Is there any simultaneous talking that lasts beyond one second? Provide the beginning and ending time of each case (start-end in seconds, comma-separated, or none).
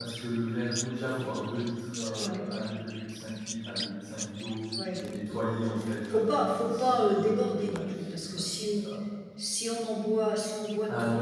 6.1-8.8